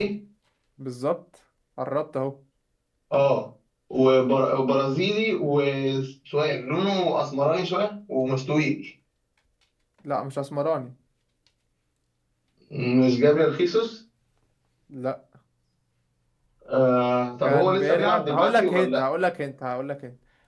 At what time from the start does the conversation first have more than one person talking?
17.4 s

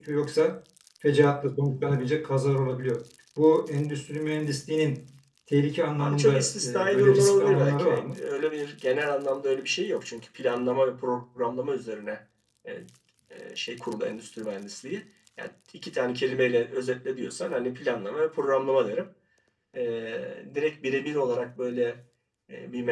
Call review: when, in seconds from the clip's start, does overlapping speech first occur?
6.0 s

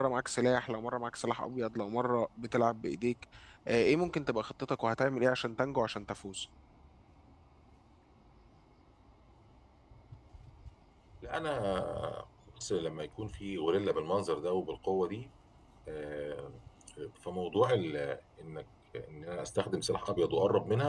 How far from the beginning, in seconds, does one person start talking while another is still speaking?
none

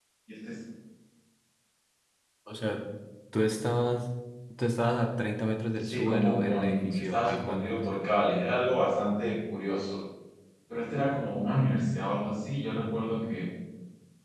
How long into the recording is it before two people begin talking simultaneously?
5.8 s

